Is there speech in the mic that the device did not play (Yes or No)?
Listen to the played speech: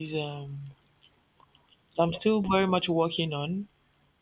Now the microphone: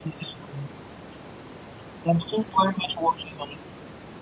No